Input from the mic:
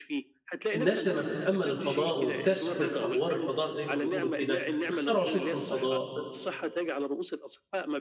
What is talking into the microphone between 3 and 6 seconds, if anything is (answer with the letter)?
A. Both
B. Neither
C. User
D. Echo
A